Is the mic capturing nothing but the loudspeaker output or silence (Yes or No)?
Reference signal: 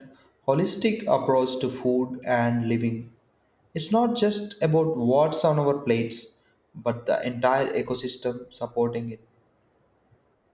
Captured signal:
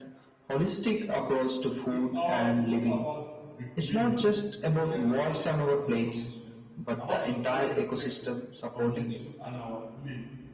No